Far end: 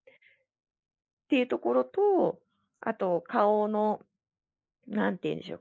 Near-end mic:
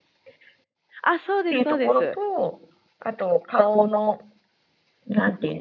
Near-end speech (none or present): present